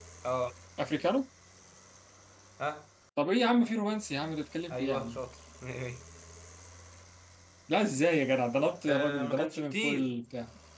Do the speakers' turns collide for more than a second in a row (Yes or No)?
Yes